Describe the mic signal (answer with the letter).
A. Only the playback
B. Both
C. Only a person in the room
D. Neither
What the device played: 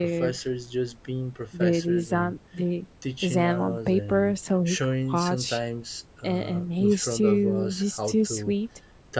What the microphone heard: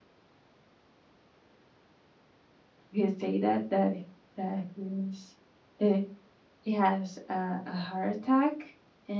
C